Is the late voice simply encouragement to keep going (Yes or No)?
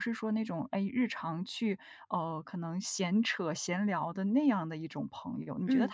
Yes